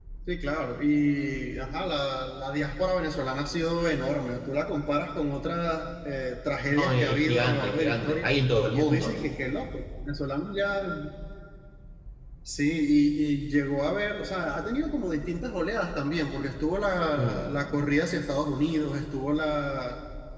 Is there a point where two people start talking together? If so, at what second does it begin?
6.8 s

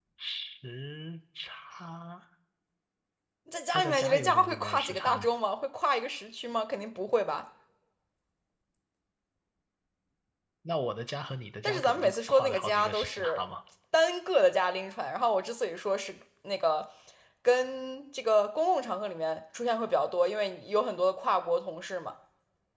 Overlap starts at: 3.7 s

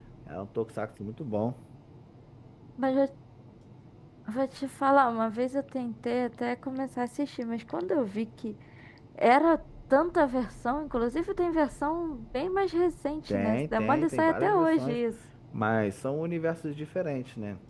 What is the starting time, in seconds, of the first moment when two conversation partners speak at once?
13.3 s

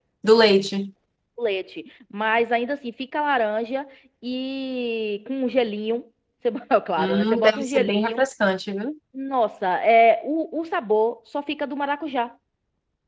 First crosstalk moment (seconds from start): 7.0 s

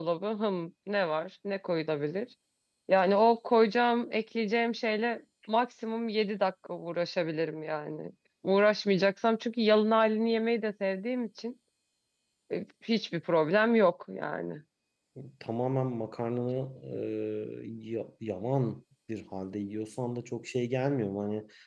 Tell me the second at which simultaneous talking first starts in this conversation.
none

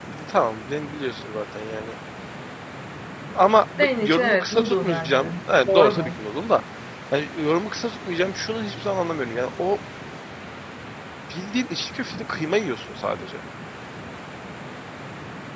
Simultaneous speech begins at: 3.8 s

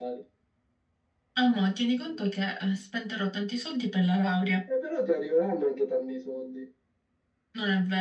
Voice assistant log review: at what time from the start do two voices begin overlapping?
none

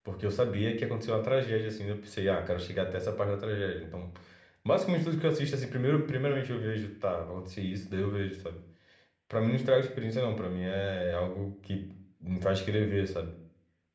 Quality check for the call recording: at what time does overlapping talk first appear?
none

